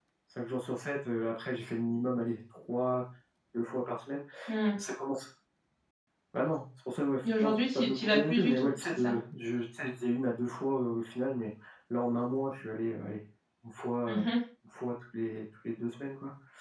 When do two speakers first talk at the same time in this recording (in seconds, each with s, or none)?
7.2 s